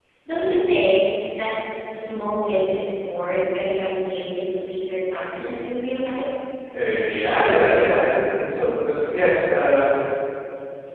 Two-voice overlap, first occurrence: none

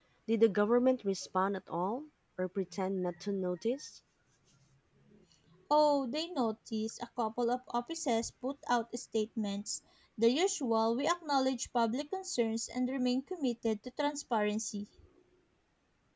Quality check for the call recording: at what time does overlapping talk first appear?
none

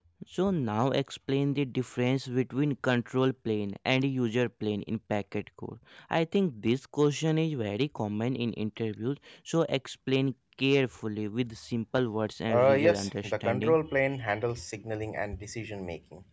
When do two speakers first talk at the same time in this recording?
12.5 s

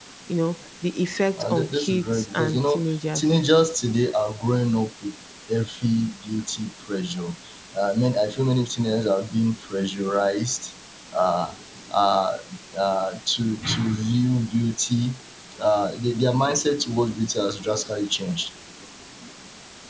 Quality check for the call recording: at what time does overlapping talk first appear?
1.4 s

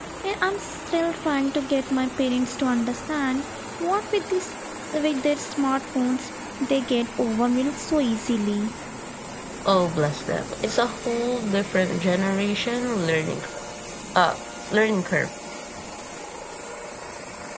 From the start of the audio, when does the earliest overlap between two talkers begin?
none

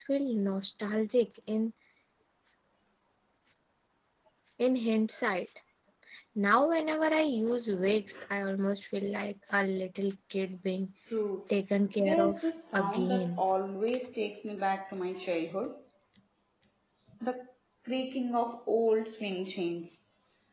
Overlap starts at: 12.0 s

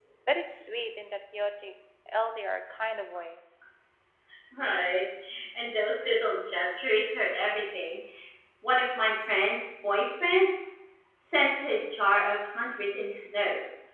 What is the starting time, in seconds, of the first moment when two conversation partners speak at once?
none

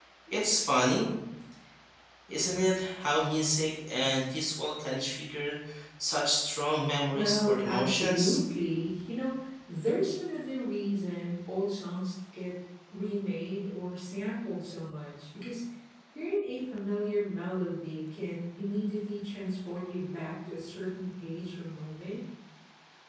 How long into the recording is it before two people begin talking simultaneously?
7.1 s

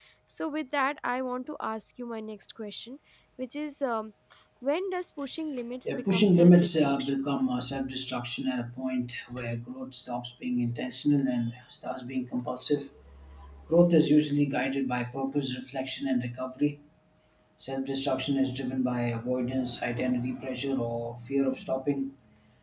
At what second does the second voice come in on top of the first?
5.8 s

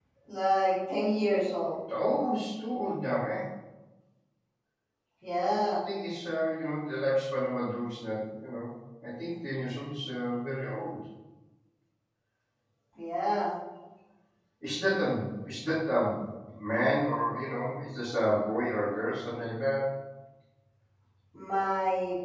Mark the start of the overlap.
none

